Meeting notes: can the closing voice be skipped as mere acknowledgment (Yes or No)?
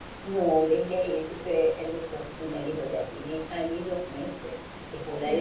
Yes